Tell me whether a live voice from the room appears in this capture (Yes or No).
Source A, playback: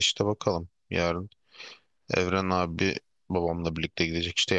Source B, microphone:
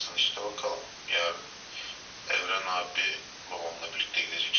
No